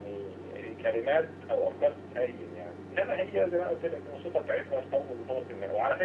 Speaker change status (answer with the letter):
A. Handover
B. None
B